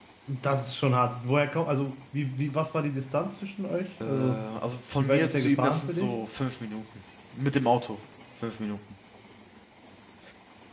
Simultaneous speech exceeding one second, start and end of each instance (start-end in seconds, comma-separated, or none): 5.0-6.2